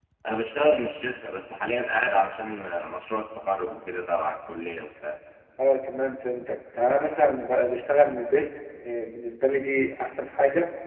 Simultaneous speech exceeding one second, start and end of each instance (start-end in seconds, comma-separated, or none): none